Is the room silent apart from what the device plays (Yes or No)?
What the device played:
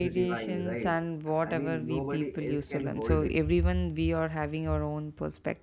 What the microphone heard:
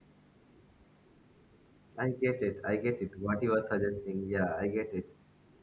No